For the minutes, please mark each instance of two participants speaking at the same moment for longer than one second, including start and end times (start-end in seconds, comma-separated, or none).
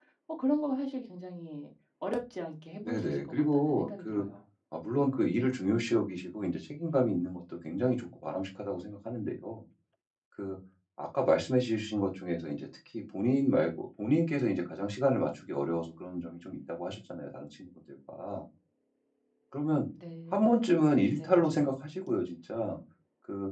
2.9-4.2